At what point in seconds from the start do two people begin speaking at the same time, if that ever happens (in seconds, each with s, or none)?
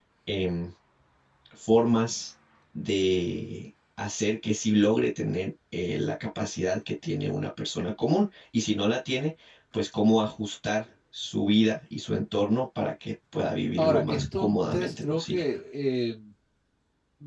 13.8 s